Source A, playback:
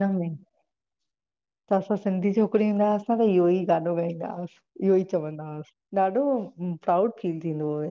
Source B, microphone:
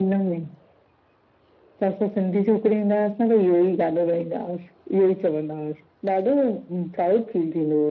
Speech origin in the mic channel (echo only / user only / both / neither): echo only